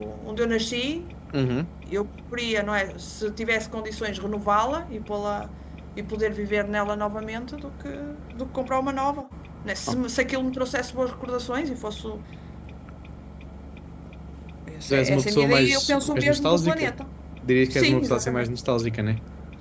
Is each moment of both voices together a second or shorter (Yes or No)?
No